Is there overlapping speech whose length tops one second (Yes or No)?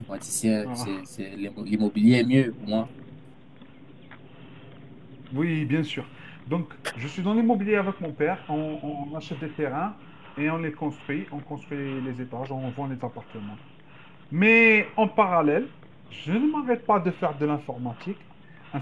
No